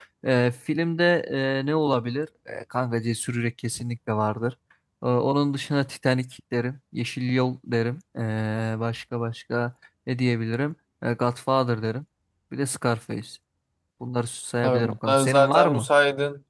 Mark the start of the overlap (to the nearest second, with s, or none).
15 s